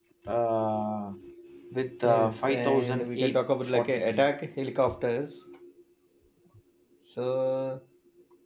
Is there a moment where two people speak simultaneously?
Yes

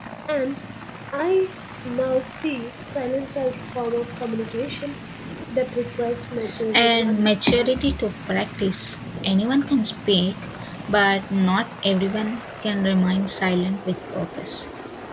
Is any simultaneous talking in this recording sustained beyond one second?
Yes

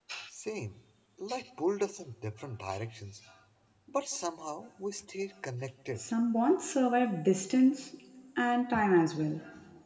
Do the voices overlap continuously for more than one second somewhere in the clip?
No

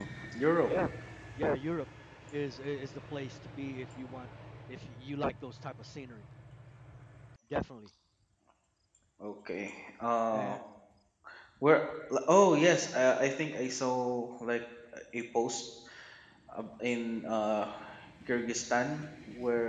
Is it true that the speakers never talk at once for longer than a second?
Yes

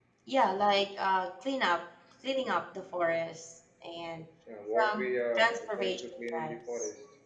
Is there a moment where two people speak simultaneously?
Yes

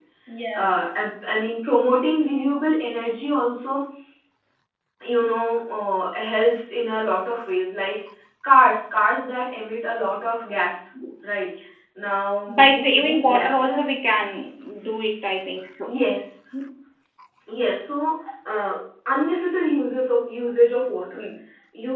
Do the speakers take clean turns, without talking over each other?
No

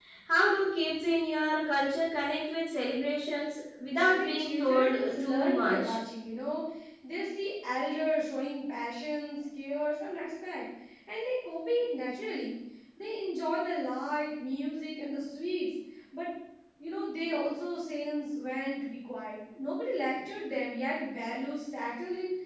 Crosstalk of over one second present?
Yes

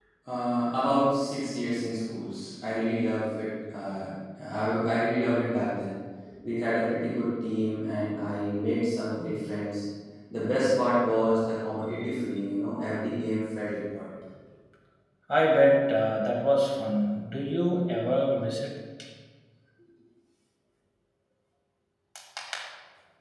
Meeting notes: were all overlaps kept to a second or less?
Yes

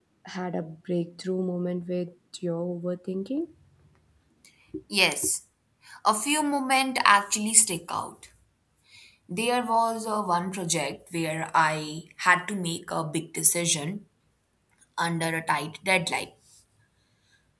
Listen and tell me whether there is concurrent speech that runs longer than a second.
No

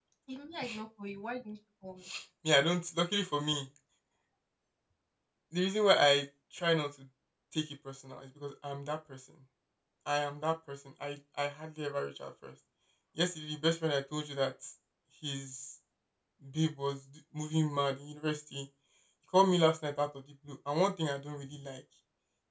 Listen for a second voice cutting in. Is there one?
No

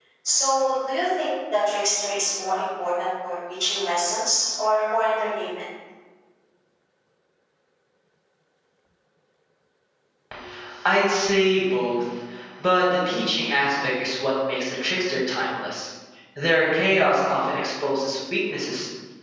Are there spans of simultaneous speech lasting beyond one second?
No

